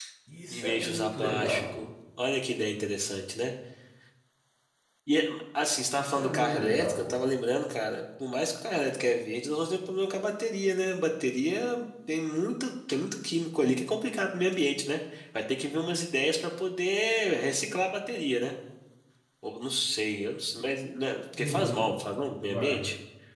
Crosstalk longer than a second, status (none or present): present